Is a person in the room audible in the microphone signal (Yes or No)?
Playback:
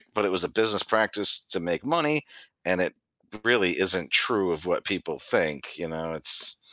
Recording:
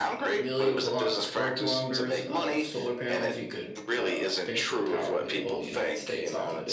Yes